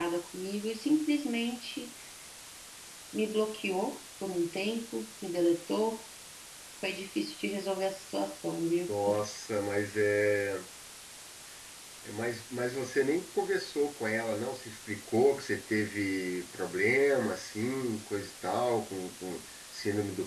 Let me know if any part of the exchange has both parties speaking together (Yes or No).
No